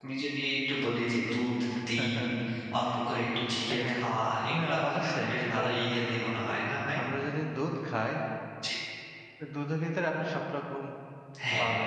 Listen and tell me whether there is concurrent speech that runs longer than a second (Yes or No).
Yes